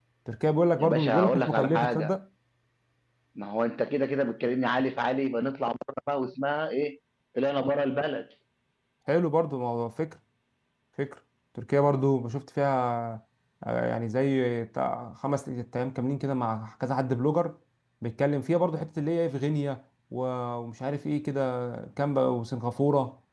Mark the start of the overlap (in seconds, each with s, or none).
0.8 s